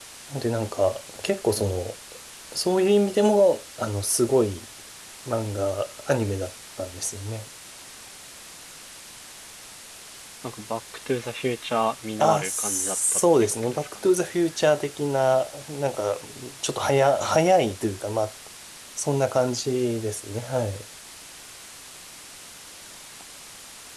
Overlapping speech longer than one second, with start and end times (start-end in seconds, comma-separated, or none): 12.2-13.9